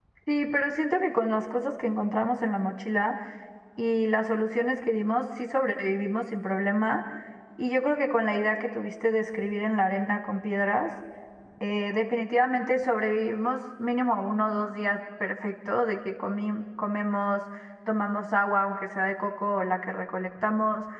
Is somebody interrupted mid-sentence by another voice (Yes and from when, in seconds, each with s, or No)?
No